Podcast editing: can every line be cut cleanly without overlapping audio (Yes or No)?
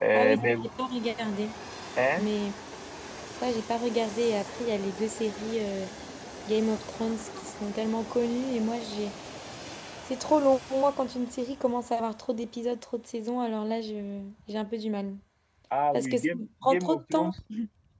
No